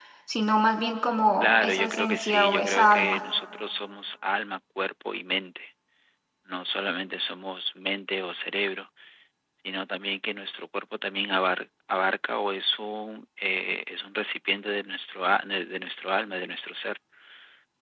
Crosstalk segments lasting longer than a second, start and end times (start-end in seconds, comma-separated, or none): 1.4-3.2